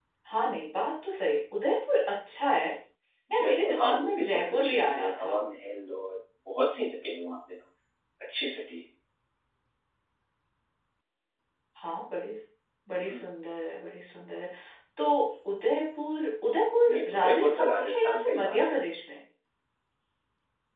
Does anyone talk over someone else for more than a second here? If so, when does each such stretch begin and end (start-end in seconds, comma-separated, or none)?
3.3-5.3, 16.9-18.8